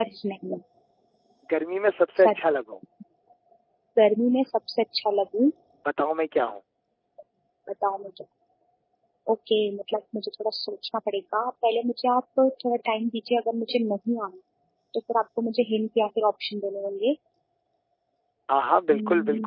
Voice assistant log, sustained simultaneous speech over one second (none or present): none